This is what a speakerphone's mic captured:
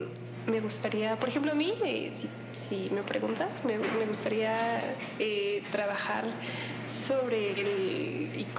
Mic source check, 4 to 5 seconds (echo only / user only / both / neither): echo only